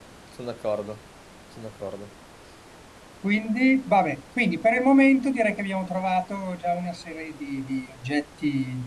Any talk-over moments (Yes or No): No